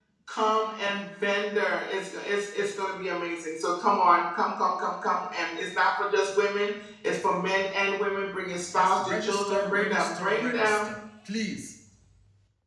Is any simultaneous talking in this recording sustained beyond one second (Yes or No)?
Yes